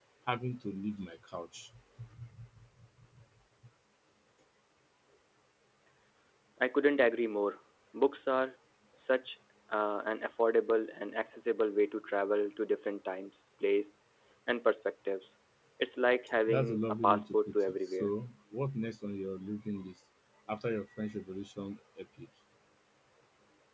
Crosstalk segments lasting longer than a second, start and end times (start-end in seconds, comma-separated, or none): 16.5-18.1